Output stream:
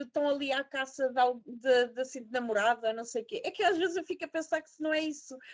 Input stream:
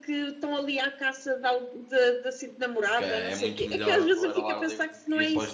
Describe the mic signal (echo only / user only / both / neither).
both